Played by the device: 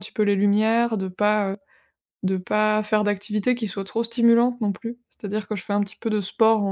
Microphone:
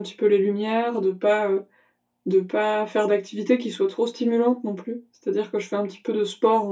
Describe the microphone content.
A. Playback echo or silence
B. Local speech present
A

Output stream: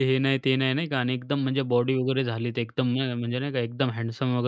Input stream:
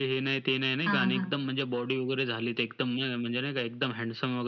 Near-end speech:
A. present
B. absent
A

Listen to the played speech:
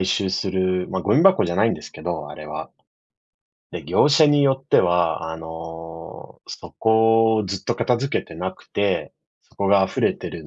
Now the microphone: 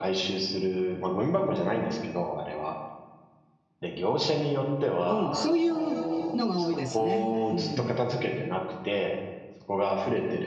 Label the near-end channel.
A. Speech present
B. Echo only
A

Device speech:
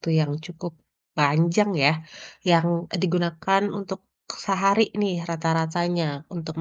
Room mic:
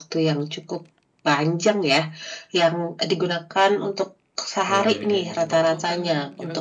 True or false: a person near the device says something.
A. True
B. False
A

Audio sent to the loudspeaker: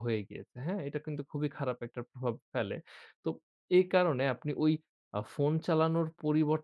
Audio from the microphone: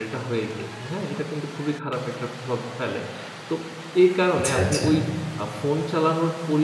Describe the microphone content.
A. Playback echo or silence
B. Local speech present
B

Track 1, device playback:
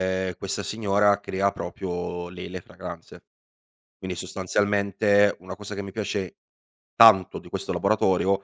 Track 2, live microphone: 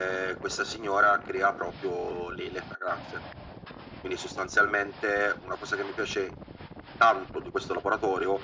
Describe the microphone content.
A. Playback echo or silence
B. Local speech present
A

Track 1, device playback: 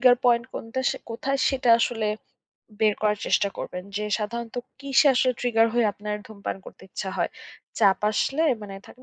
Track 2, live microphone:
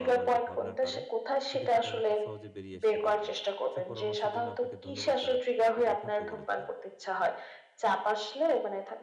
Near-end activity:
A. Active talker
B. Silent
A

